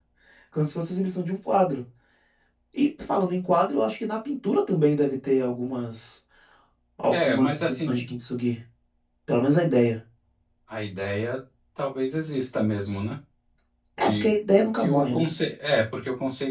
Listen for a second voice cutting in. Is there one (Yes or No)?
Yes